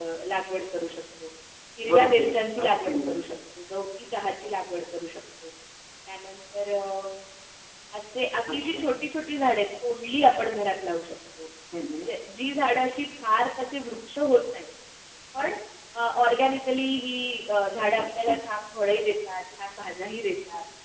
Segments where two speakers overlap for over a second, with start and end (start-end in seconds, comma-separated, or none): 1.9-3.2